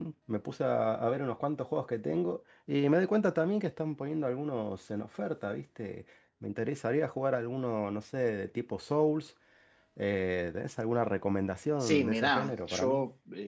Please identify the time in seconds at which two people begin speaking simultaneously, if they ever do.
12 s

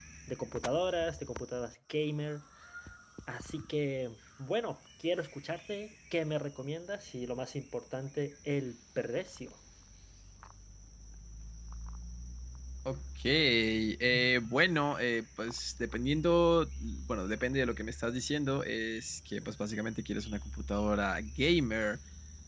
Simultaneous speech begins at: none

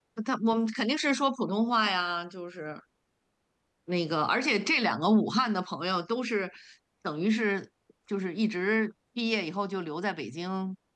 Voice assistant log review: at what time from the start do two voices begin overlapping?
none

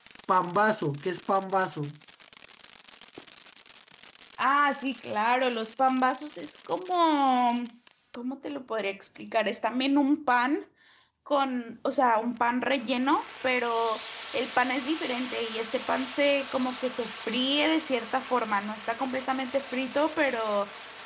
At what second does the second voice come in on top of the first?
none

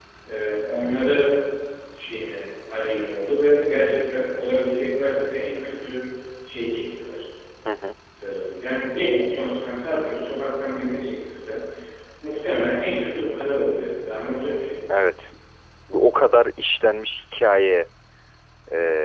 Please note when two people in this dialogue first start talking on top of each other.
none

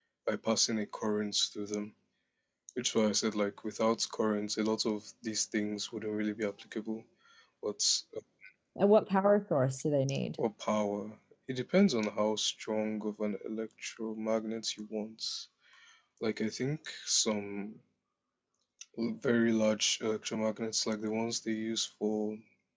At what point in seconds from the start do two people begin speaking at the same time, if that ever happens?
none

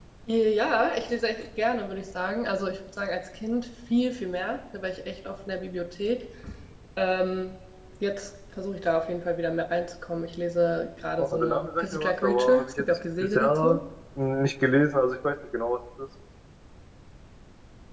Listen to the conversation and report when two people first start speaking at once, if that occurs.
11 s

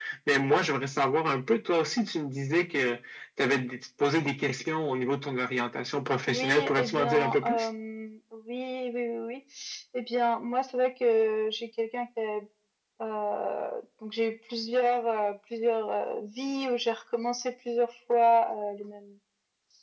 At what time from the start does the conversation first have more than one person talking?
6 s

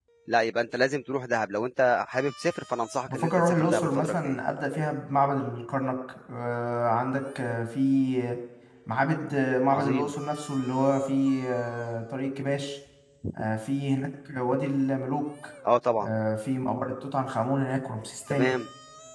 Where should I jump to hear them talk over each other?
3 s

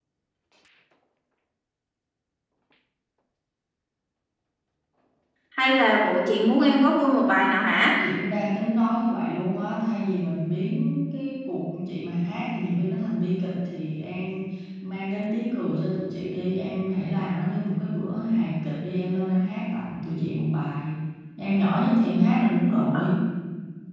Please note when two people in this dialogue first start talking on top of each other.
none

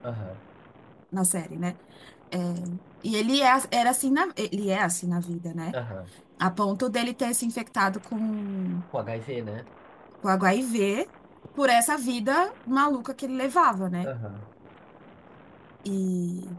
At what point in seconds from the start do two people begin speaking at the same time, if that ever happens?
none

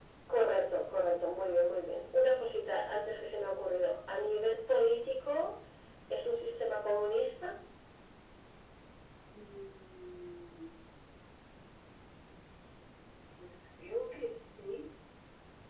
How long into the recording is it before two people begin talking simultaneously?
none

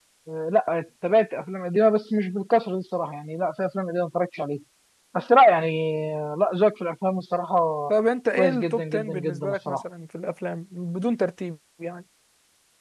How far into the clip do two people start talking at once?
8 s

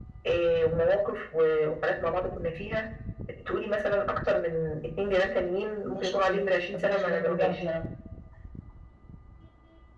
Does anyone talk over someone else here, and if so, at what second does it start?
6 s

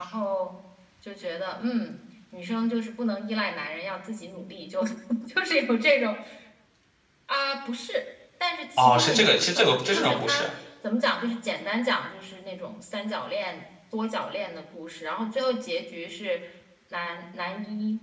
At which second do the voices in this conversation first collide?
9 s

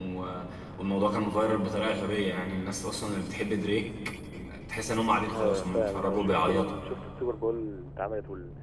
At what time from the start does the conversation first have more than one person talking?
5 s

